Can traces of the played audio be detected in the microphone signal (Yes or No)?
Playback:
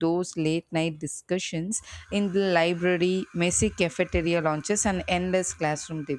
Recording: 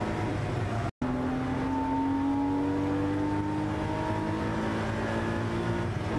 No